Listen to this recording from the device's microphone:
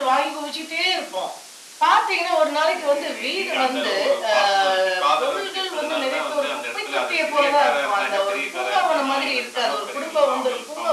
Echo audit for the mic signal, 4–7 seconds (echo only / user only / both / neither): echo only